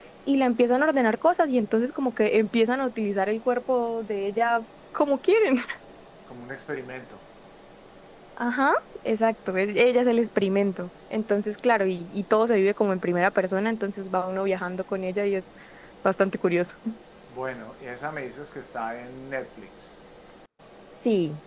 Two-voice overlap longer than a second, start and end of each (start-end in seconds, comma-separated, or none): none